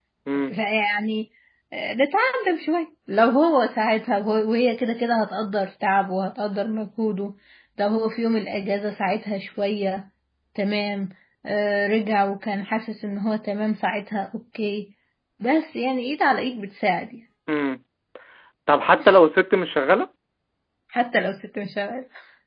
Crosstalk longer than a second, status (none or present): none